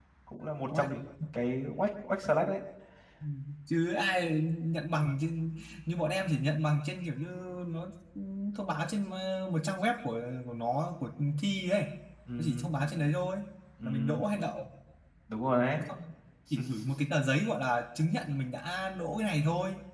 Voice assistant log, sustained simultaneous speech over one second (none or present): none